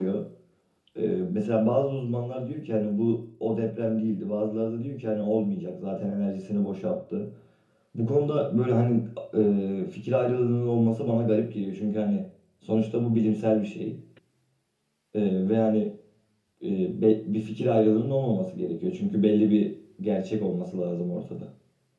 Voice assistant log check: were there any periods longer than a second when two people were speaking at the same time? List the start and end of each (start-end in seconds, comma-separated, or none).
none